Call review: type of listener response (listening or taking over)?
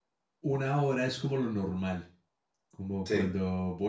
listening